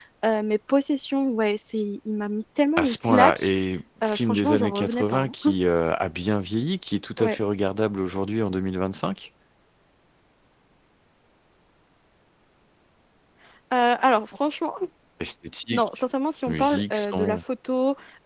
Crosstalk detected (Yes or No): Yes